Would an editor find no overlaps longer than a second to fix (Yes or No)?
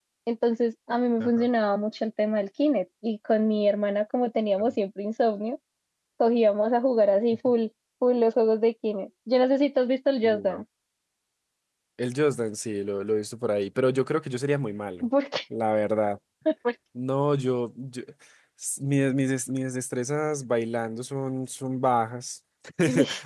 Yes